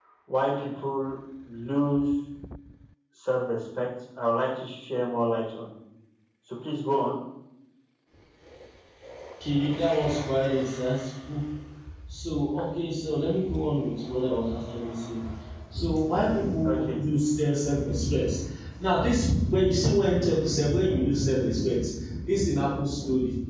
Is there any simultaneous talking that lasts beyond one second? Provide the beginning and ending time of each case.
none

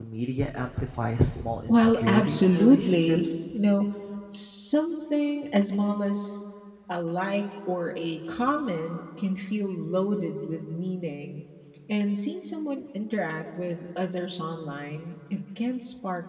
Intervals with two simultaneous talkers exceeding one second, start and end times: 1.7-3.2

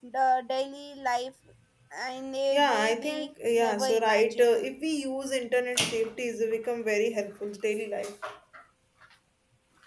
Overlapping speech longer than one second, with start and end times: 2.5-4.6

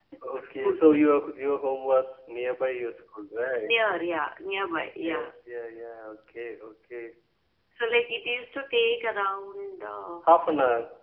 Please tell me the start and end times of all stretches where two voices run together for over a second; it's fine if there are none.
none

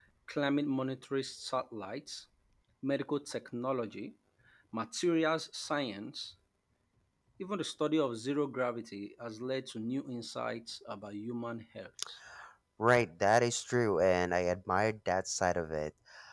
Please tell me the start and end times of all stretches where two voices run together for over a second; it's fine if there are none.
none

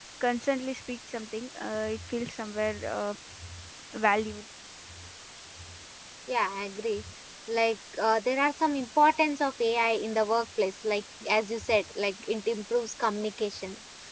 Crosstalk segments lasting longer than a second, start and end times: none

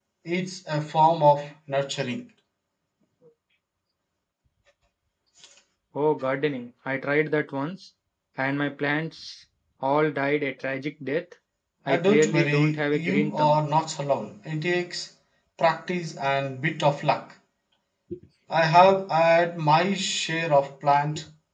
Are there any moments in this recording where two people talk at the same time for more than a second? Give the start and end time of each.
11.9-13.6

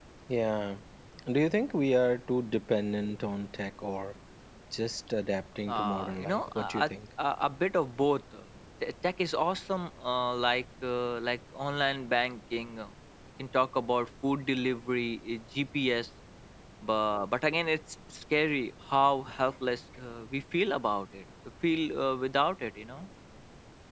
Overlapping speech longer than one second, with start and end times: 5.7-6.9

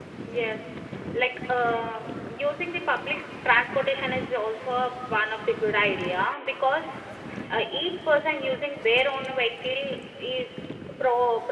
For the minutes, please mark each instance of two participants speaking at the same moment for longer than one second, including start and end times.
none

